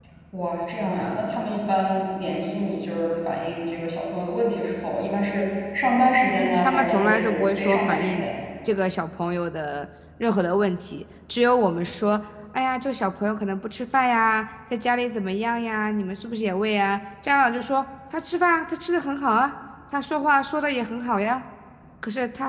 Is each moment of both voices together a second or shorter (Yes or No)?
No